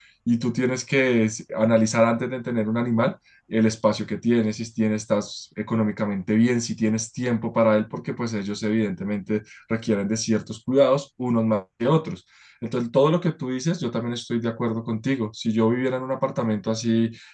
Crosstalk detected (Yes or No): No